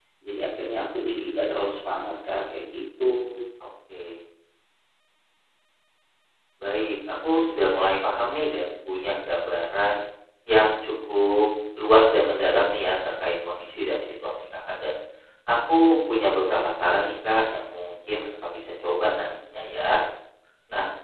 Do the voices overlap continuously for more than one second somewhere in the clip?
No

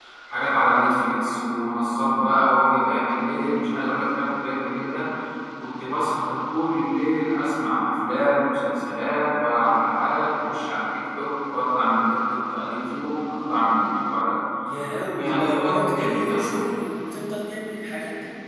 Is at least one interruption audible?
Yes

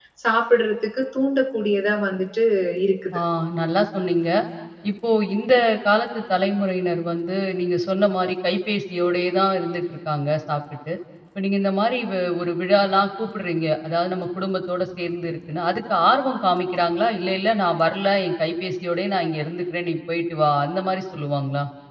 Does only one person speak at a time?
Yes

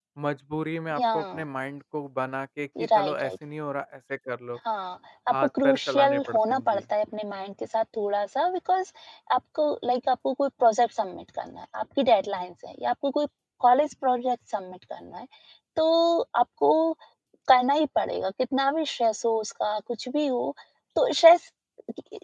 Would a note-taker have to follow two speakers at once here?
Yes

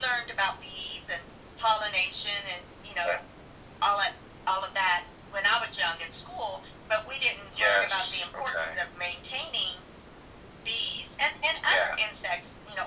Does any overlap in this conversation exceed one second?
Yes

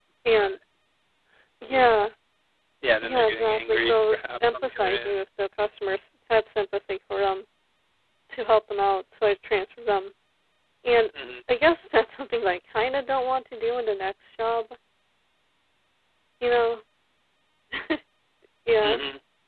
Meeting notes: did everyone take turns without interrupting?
No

